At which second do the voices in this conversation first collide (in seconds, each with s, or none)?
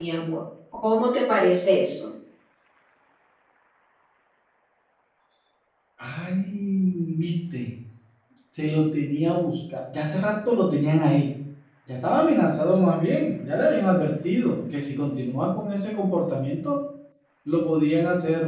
none